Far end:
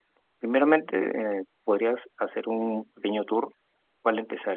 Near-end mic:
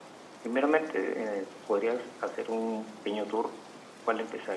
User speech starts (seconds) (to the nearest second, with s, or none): none